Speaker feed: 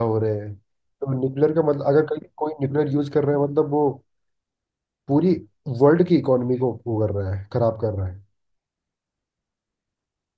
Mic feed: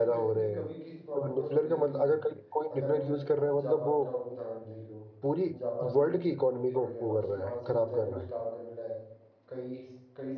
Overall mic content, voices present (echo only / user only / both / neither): both